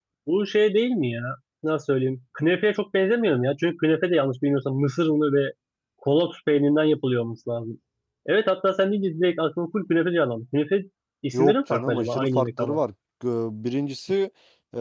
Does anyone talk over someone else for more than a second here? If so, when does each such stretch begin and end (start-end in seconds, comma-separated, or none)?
11.3-12.8